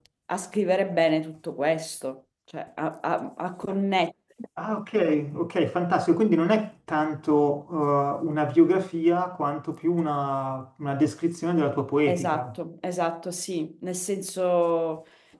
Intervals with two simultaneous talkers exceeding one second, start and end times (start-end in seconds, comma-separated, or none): none